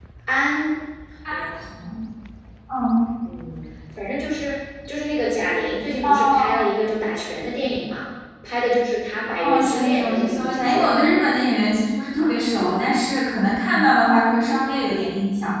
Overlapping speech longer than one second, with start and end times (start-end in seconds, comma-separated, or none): 9.4-10.9